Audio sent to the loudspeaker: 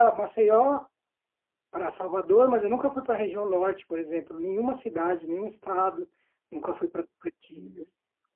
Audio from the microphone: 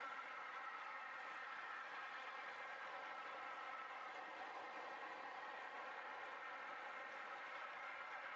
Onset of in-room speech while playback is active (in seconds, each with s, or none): none